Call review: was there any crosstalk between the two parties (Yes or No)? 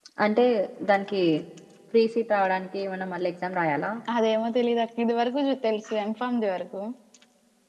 No